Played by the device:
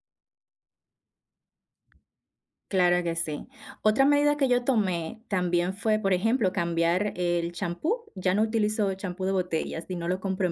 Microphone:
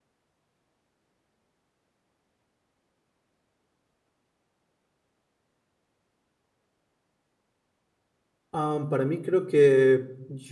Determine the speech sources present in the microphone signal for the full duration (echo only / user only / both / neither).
user only